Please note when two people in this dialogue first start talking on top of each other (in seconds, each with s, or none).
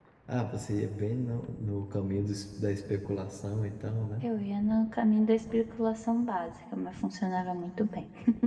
none